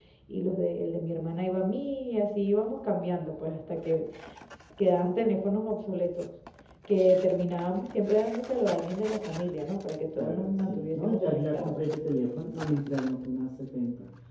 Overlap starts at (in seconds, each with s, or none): 10.2 s